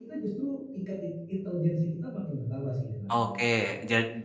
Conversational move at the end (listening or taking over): taking over